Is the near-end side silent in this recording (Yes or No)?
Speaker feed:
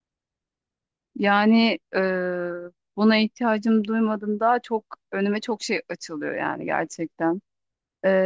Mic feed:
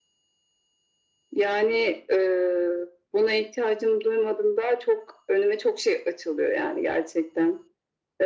Yes